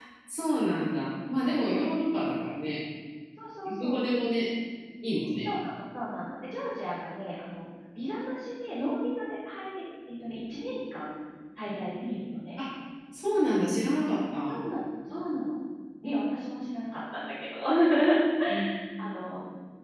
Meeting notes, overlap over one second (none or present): none